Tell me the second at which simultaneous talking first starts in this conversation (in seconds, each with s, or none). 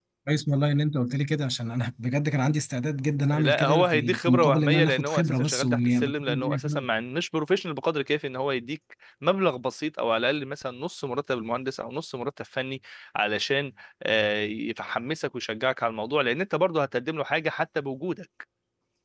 3.3 s